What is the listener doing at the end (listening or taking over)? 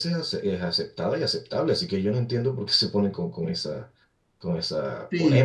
taking over